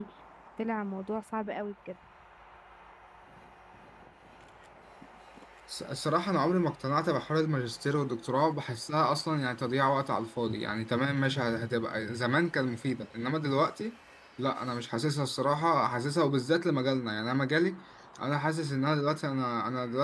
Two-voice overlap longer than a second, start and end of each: none

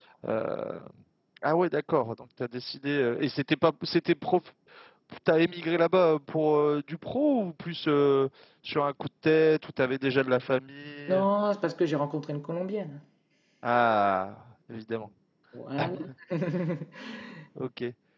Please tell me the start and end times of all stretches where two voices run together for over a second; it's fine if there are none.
none

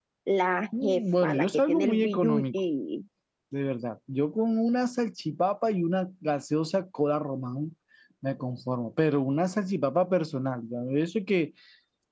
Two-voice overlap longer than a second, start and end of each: 0.8-2.4

